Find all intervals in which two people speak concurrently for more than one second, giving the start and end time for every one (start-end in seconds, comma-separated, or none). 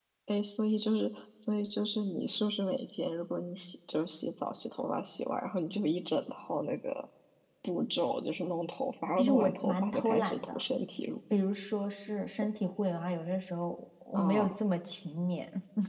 9.2-10.6